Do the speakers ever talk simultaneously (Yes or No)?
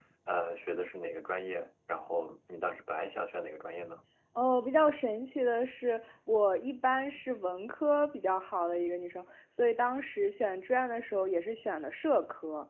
No